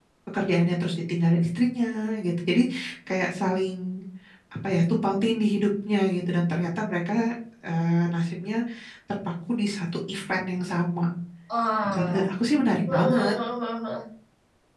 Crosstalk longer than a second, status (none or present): none